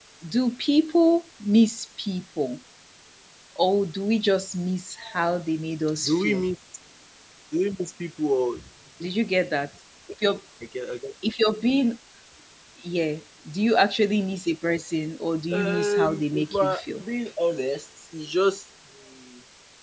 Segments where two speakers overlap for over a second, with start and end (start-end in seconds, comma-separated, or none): 15.5-17.0